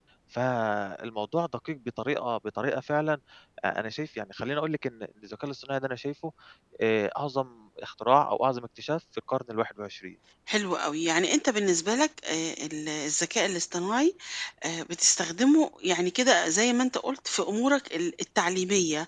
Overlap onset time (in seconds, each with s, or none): none